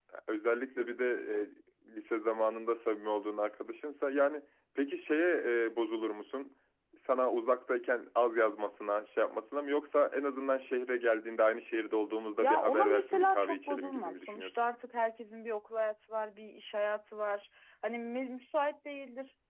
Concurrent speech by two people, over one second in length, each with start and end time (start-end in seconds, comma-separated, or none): 12.4-14.6